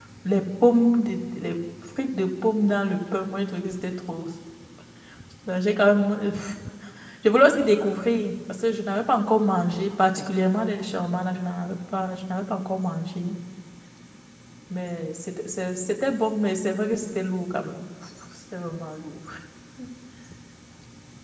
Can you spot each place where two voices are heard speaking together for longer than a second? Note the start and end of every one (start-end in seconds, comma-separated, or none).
none